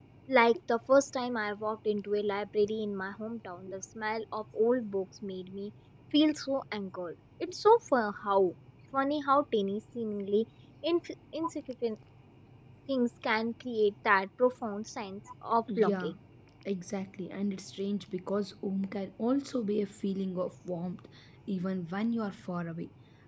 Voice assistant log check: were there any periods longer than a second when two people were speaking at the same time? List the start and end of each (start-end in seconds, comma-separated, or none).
none